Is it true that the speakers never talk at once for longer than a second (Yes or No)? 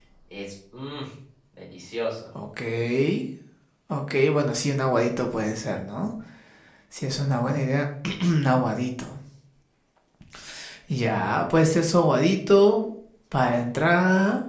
Yes